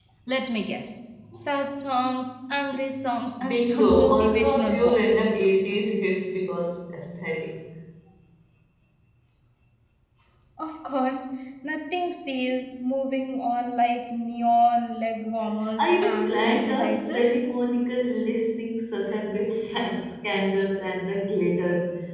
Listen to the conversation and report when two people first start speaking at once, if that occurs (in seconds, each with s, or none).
3.5 s